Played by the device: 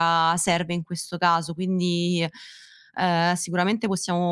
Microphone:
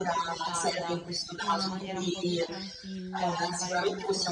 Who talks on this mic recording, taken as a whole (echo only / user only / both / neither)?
both